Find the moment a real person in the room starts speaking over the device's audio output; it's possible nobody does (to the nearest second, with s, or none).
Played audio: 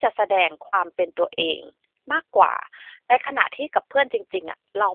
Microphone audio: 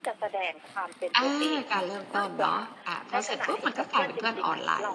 1 s